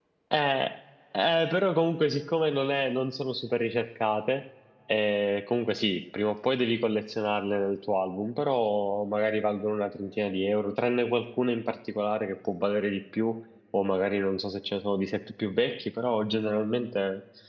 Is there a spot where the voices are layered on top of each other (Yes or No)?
No